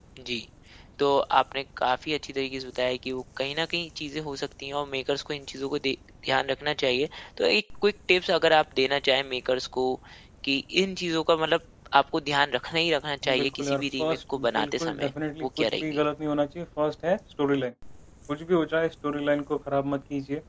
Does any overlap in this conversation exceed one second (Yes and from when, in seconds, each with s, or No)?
Yes, from 13.2 s